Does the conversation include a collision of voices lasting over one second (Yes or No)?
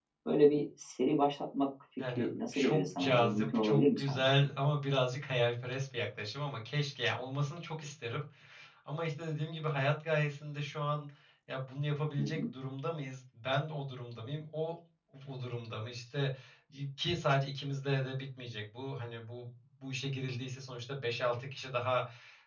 Yes